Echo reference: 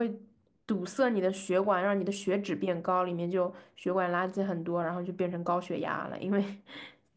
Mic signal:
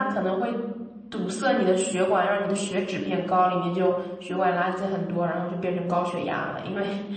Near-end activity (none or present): none